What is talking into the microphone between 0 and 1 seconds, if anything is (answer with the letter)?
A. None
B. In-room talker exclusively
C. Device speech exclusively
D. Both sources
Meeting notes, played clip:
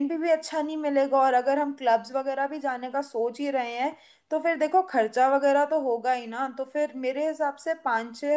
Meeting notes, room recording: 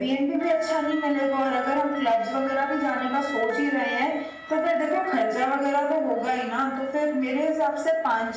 C